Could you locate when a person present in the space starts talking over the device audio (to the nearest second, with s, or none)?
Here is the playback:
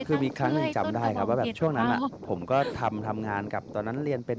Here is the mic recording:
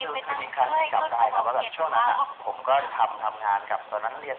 none